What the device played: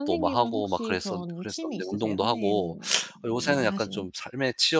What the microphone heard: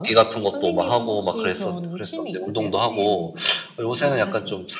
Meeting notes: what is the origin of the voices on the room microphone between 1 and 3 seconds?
echo only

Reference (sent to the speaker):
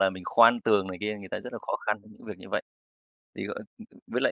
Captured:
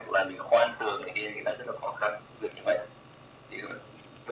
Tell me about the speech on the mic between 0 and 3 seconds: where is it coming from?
echo only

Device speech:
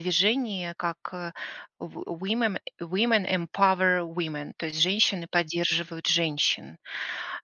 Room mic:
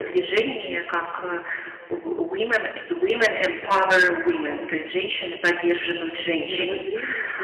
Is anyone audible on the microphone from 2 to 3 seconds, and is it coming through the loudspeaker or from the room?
echo only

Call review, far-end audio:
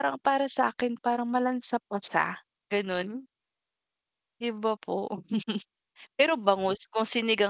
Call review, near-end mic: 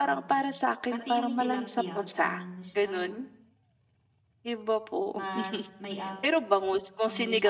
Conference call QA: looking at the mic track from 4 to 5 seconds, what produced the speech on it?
echo only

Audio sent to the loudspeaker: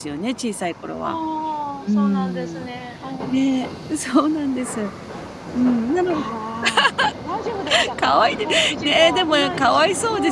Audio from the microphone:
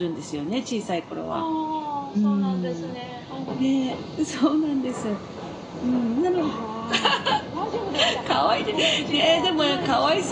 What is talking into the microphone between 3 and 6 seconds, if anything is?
echo only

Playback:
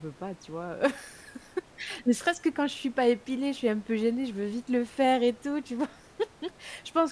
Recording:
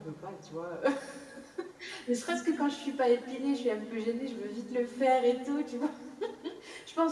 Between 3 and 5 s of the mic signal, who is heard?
echo only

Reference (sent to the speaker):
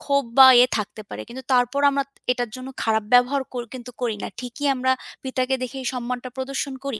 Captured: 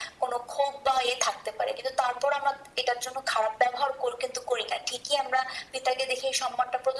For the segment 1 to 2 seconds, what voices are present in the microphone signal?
echo only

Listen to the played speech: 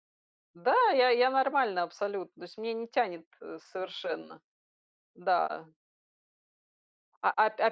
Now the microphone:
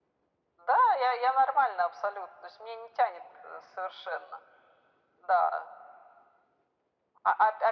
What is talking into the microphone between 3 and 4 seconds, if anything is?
echo only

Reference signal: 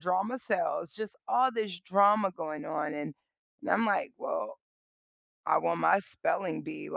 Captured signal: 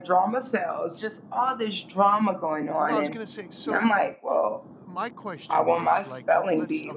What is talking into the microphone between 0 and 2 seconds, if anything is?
echo only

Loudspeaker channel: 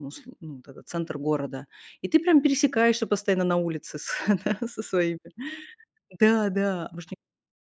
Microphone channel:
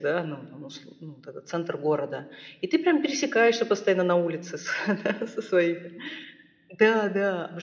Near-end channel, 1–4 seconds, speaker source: echo only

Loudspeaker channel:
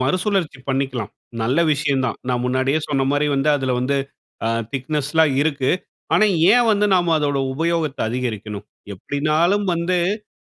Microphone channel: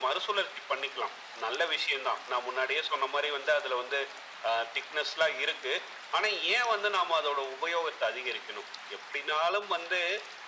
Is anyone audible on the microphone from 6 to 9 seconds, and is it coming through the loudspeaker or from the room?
echo only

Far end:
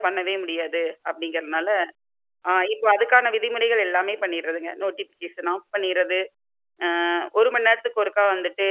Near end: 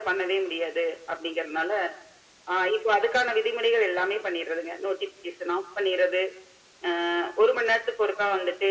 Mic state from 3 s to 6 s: echo only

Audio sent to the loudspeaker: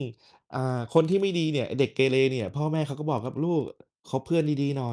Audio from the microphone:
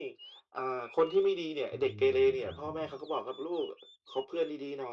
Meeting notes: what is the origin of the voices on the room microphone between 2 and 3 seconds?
both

